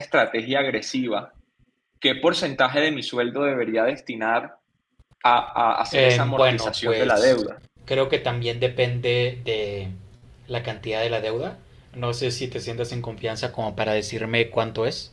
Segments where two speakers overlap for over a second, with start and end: 5.9-7.5

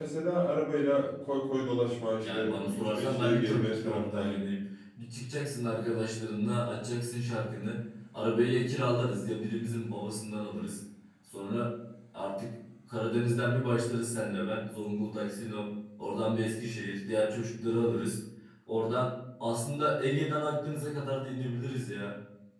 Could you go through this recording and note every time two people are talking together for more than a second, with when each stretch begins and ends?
2.2-4.4

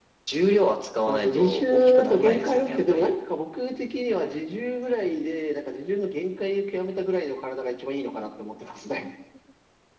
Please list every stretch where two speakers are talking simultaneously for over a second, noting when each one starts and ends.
1.1-3.1

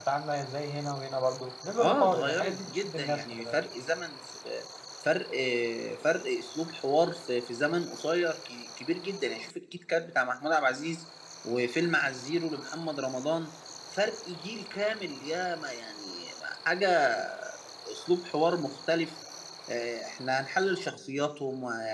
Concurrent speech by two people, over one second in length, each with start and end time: 1.8-3.6

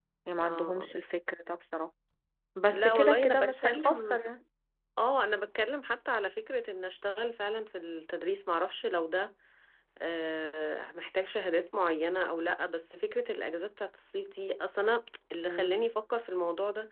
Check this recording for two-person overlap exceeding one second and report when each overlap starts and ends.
2.7-4.2

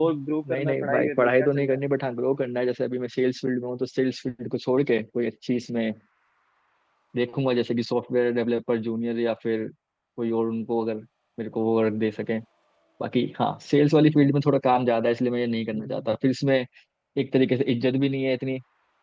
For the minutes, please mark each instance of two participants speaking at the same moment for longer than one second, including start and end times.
0.5-1.8

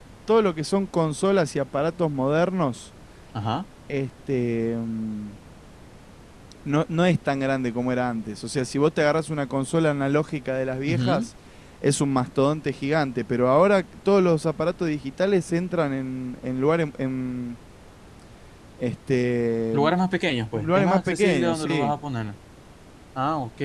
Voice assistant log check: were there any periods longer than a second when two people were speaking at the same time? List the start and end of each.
20.5-21.9

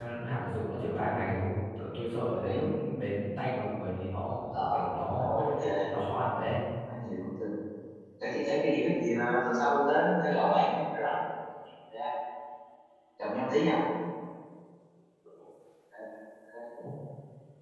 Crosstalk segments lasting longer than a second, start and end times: none

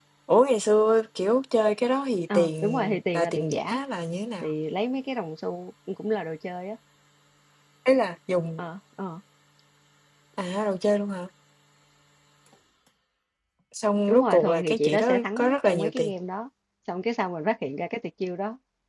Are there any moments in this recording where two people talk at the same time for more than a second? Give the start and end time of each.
2.3-3.8, 14.1-16.1

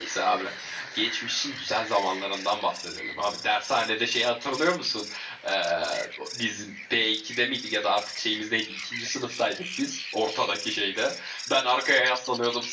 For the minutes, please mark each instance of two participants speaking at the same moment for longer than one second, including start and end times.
none

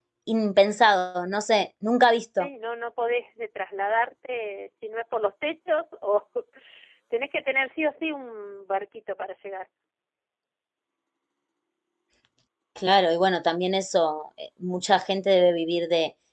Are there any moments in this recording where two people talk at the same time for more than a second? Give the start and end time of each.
none

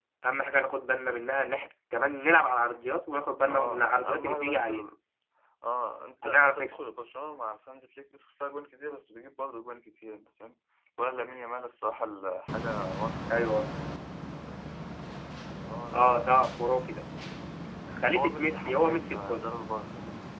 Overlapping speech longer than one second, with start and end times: 3.5-4.7, 18.1-19.5

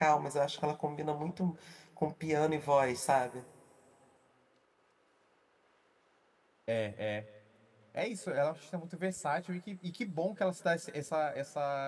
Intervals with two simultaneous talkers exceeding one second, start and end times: none

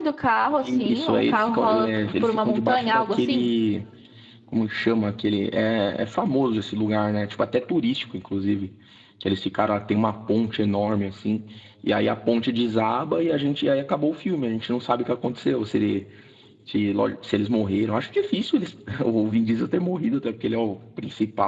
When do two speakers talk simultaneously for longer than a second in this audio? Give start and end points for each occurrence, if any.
0.9-3.5

